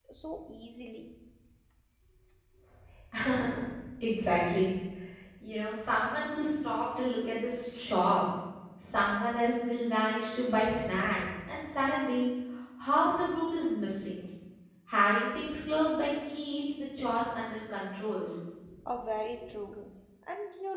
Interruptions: none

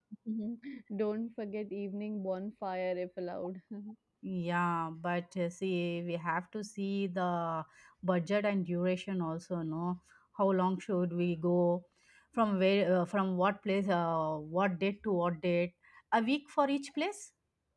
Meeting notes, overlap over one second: none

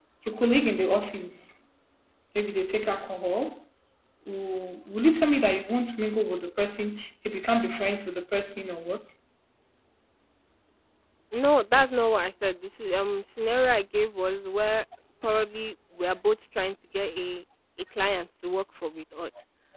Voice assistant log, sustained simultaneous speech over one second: none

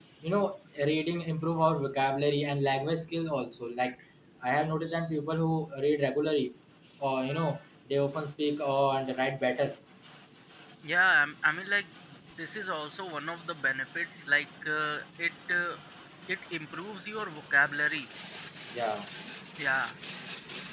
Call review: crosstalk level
none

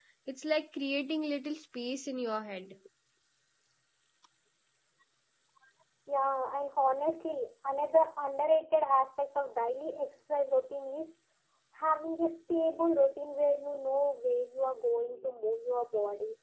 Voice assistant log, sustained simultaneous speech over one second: none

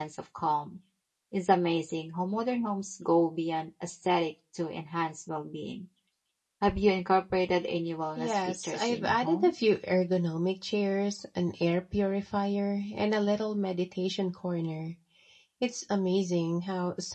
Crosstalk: present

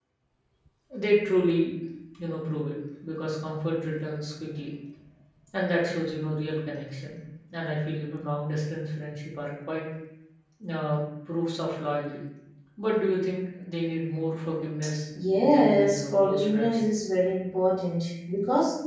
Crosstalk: present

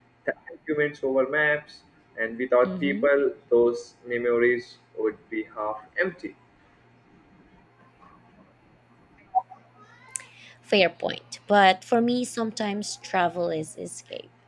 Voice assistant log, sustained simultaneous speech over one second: none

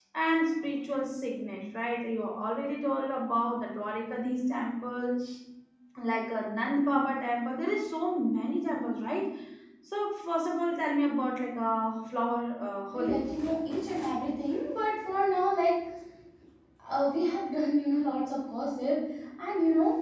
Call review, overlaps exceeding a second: none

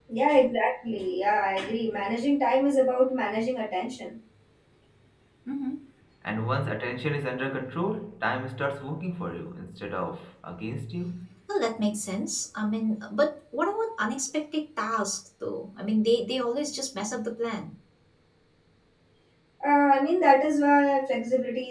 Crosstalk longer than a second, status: none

